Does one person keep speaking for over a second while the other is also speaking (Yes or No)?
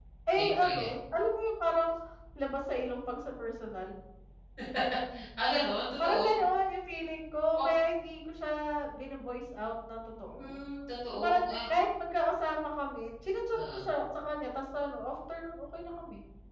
No